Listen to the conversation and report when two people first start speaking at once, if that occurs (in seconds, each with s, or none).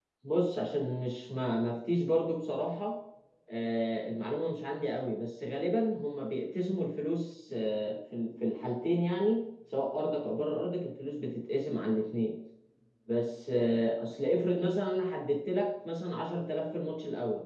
none